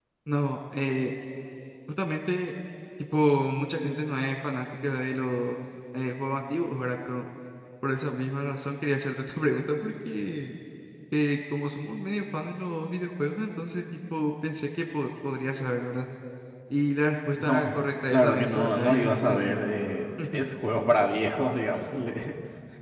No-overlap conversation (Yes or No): No